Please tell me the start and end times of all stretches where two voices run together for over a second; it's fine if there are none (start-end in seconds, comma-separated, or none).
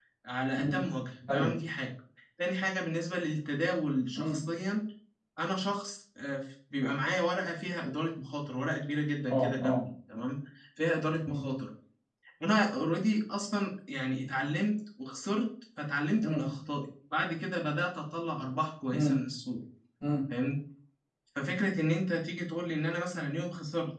none